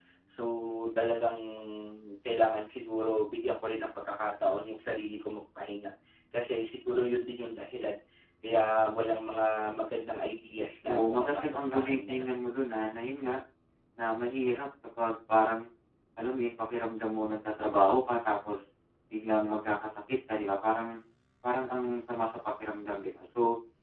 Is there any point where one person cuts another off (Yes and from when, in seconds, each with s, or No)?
Yes, from 10.8 s